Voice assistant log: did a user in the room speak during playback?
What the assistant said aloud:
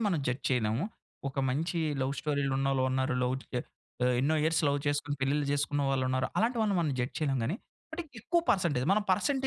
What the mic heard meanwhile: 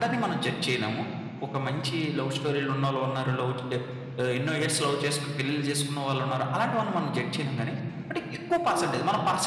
No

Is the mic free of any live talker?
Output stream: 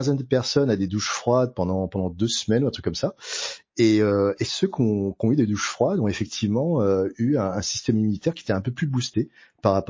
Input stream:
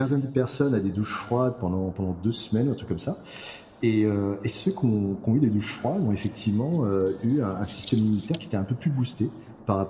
Yes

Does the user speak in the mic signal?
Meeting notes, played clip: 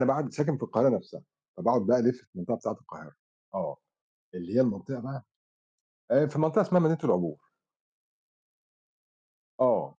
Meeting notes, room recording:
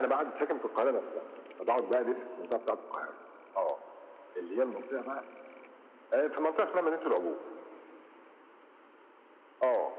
No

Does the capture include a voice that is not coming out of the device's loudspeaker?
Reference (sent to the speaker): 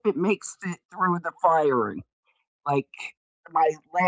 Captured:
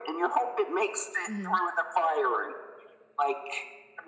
Yes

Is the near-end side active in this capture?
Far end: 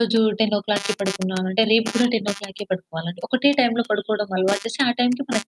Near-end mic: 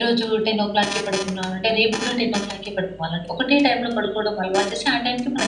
No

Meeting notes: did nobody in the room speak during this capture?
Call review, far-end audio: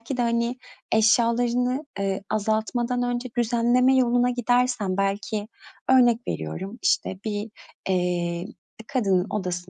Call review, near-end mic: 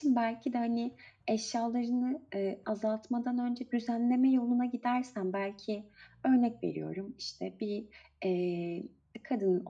Yes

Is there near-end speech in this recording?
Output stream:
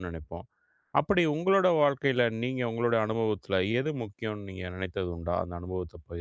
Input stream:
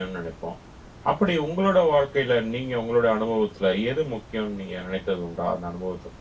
No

